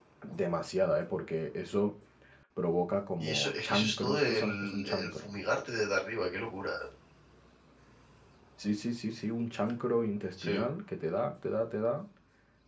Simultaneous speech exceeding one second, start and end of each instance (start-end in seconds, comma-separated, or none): 3.2-5.3